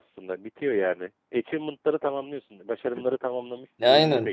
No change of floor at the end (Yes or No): No